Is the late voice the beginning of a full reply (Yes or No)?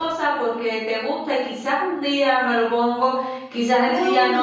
No